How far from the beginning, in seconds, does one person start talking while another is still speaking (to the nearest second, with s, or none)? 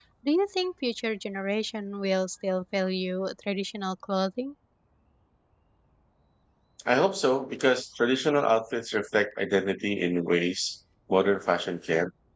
none